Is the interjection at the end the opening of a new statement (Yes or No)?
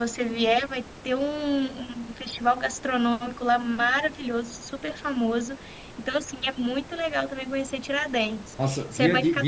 Yes